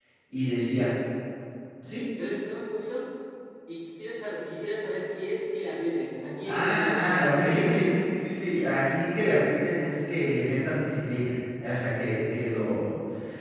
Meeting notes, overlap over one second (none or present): present